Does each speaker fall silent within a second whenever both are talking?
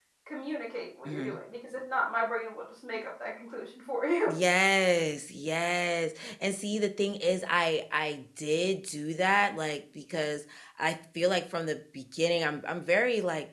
Yes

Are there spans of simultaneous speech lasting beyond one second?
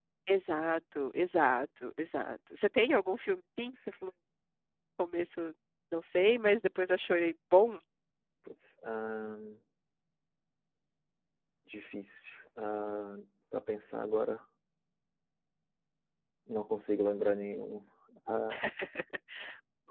No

